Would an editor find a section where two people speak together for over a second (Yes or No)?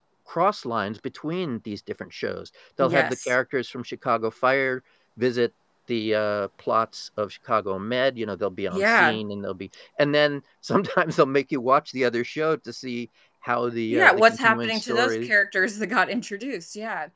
Yes